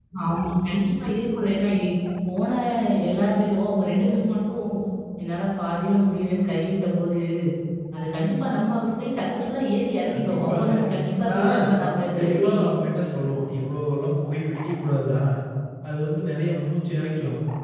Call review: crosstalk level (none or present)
present